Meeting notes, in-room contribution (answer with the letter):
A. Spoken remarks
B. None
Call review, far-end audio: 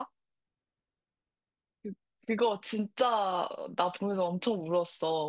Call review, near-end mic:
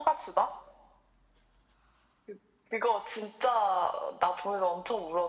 B